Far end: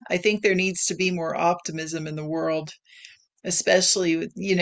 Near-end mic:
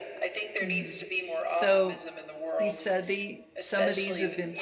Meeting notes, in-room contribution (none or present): present